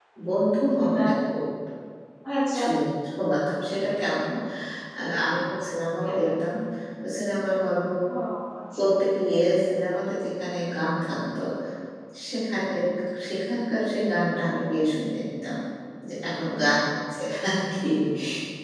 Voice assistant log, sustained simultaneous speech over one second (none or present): none